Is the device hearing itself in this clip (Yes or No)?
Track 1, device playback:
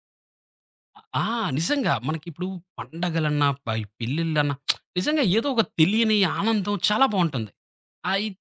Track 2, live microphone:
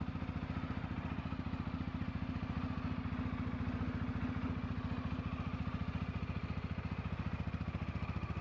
No